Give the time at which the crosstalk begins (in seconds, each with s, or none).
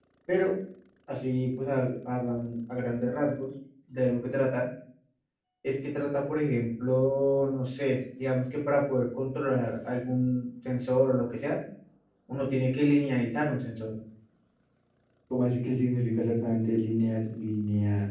none